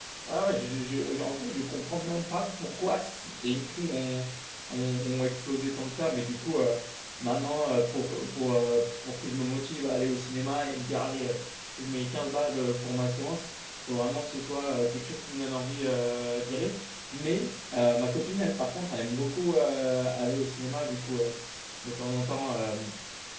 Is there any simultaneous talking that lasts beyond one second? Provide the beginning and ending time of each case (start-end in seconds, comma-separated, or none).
none